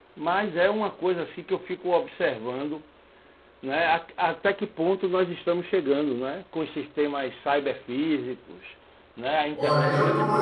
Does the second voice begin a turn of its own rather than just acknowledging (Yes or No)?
Yes